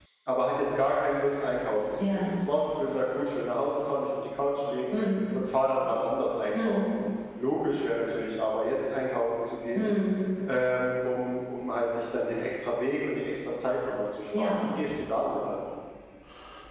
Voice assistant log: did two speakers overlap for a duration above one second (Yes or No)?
No